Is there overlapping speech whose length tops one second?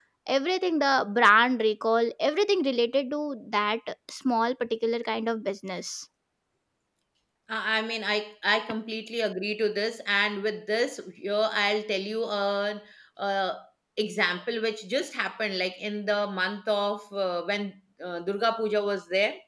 No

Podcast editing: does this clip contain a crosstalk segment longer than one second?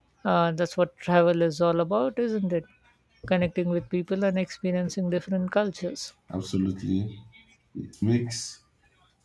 No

